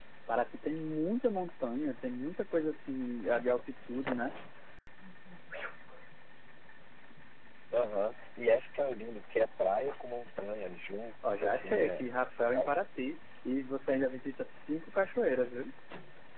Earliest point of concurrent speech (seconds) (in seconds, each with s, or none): 11.2 s